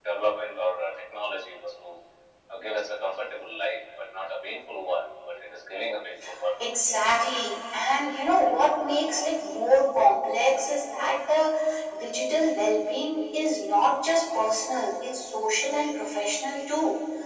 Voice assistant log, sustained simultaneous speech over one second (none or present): none